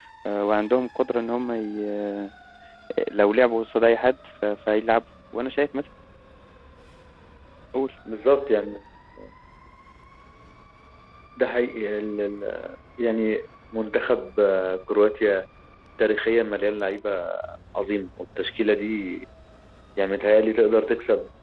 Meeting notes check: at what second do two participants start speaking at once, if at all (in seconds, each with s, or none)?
none